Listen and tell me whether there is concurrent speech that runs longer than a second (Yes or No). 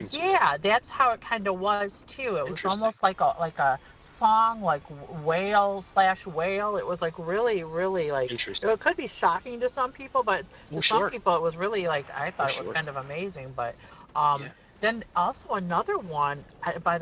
No